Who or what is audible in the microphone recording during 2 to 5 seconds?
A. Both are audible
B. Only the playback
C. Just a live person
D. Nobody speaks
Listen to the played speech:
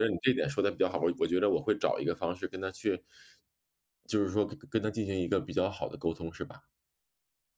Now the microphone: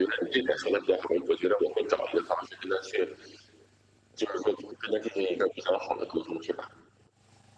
B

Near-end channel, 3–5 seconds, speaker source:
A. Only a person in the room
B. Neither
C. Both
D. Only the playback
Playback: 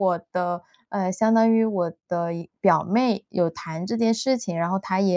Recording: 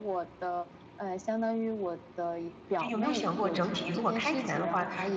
C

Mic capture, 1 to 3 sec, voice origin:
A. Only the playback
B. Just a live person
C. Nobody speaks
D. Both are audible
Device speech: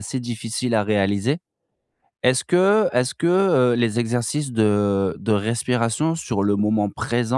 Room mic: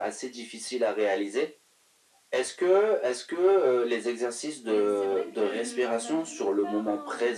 A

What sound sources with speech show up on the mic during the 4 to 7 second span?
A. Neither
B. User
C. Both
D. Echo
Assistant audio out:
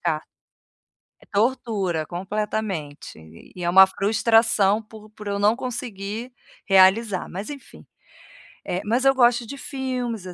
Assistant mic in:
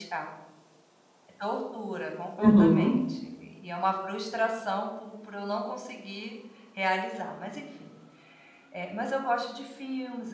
D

